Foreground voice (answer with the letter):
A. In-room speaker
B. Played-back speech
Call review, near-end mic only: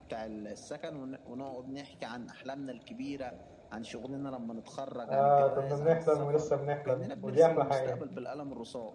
A